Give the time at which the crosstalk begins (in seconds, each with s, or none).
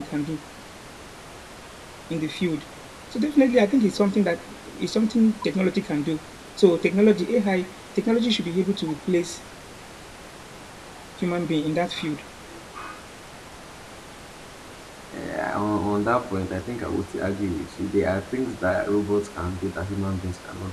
none